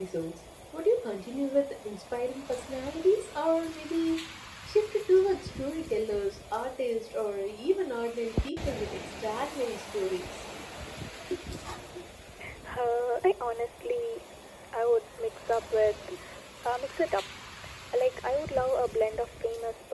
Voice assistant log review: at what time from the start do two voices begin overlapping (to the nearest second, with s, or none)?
none